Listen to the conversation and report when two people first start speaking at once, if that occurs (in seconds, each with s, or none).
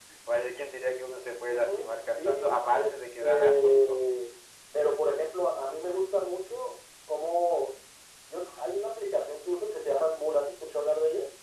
1.5 s